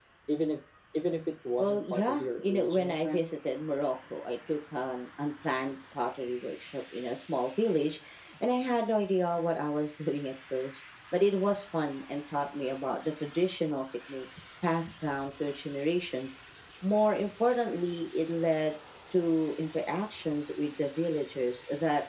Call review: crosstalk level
present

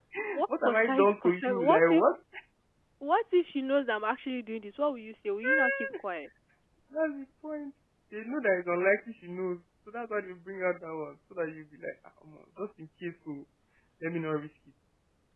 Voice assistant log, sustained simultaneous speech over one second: present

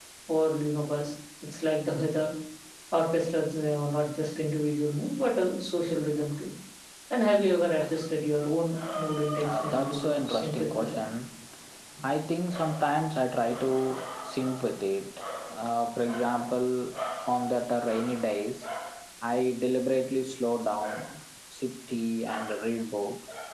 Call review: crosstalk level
present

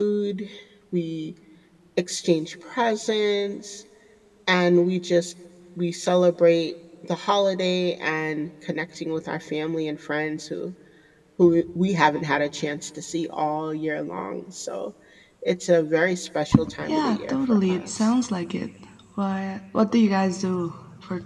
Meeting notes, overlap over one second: present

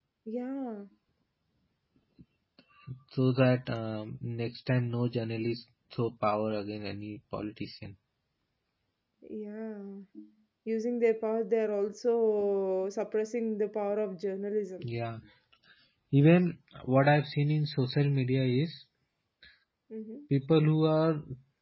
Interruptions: none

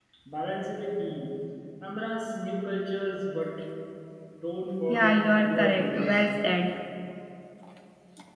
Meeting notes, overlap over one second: present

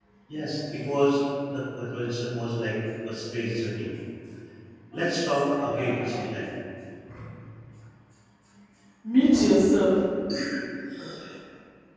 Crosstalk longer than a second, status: present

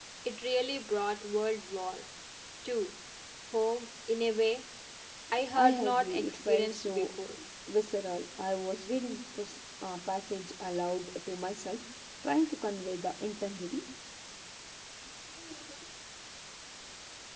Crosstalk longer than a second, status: present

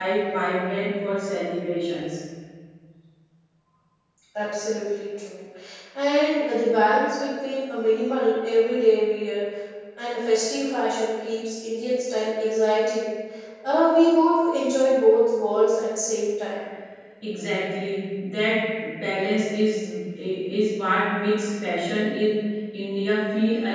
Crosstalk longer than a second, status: none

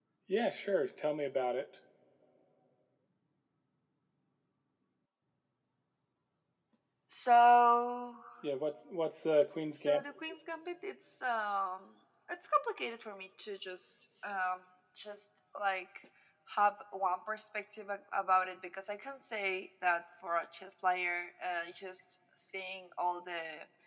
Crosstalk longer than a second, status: none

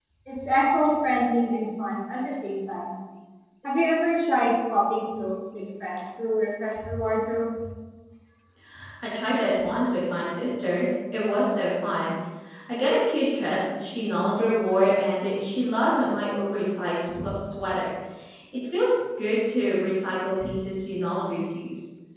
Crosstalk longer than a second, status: none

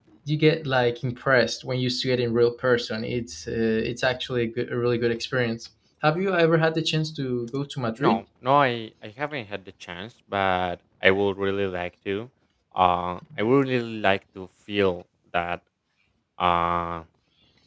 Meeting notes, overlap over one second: none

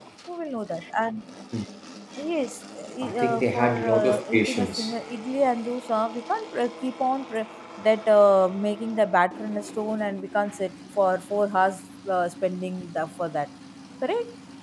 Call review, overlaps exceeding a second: present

